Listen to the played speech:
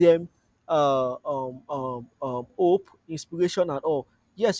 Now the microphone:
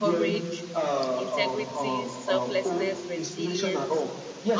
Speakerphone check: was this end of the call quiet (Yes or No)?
No